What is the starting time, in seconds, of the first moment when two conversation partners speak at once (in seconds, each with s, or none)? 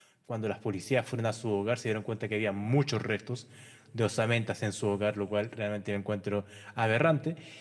none